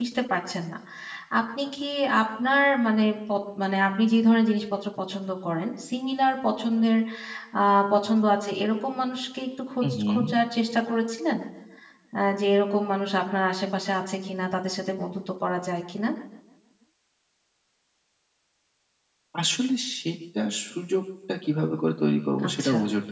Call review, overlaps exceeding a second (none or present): none